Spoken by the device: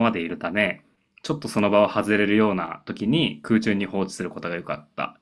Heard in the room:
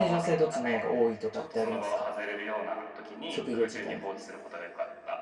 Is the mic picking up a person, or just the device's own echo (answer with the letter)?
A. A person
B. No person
A